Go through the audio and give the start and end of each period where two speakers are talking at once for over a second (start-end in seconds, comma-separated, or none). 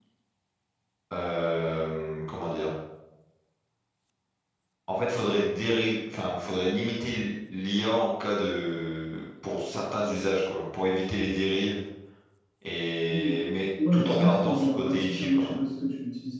13.8-15.6